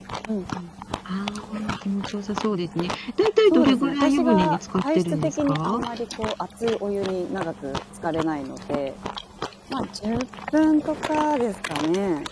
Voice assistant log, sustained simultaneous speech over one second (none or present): present